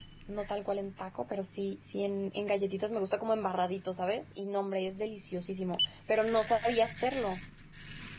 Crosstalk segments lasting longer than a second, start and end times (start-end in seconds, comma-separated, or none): none